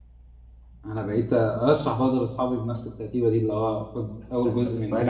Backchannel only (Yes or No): No